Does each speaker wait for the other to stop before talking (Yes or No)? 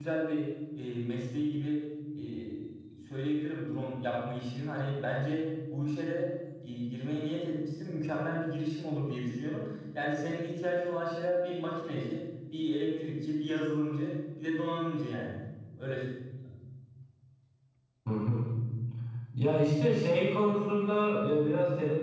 Yes